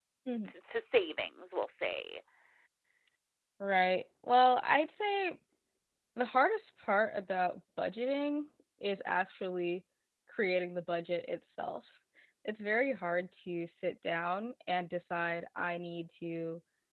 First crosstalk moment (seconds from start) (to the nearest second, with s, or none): none